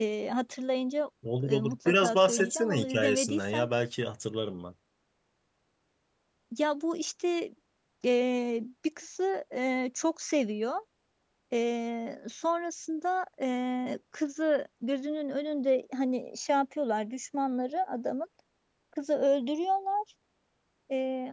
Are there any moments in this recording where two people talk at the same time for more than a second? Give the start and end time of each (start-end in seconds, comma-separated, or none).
1.5-3.7